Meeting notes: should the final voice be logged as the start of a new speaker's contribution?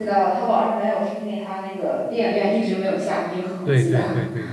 Yes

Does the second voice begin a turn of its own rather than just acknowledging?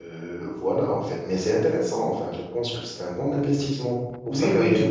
Yes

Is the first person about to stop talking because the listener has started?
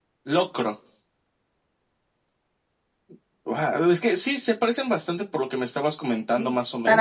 Yes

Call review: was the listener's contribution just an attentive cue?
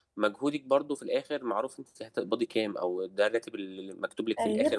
Yes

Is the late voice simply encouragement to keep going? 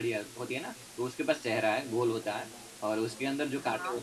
Yes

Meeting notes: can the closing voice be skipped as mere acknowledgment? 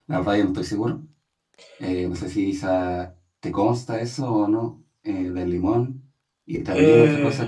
Yes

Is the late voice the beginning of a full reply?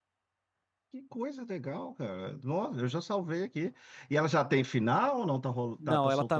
Yes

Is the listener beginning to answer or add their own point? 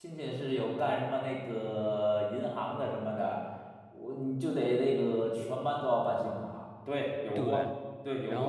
Yes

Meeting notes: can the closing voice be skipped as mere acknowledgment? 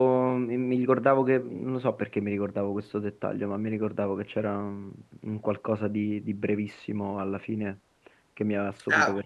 No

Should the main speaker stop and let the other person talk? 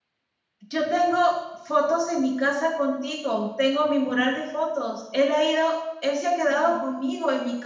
No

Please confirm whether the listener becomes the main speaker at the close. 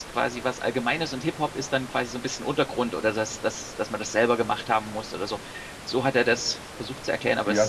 Yes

